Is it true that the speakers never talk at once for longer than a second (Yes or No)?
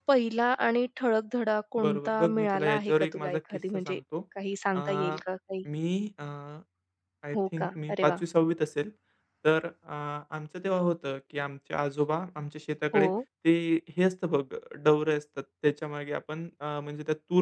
No